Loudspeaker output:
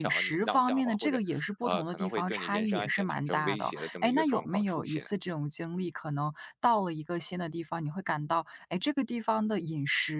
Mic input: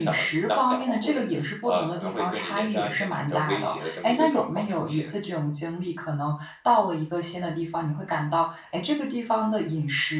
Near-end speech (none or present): none